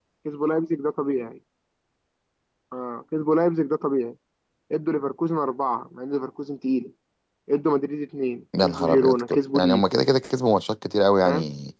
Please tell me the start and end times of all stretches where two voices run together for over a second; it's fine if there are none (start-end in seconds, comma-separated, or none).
8.6-9.9